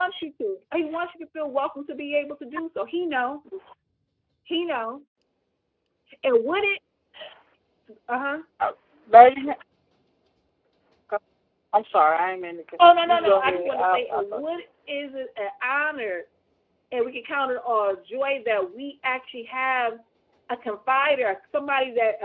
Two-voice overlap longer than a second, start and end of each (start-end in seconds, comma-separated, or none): 13.1-14.4